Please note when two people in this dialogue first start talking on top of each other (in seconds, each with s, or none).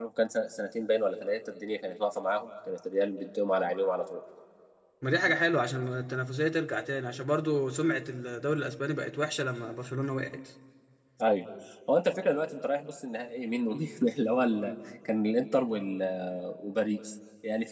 none